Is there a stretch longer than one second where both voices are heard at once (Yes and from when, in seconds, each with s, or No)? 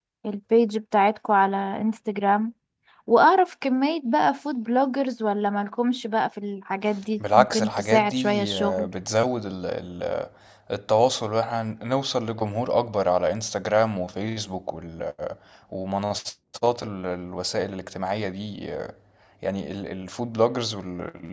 Yes, from 7.2 s